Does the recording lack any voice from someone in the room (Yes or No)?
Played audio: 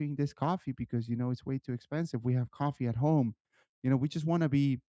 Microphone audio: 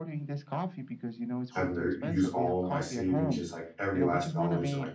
No